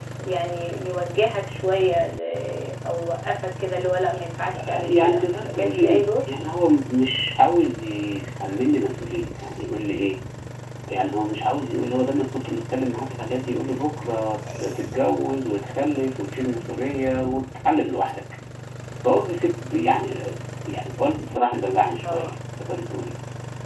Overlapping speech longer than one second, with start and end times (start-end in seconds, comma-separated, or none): 4.5-6.0